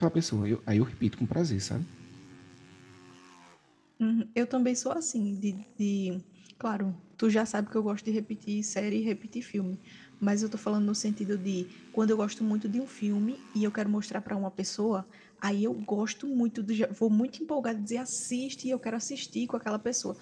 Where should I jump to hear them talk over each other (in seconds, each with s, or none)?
none